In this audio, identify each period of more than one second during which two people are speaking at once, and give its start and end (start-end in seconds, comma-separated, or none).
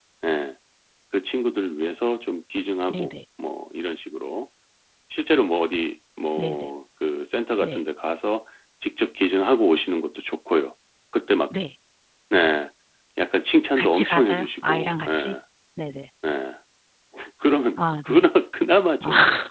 13.8-15.3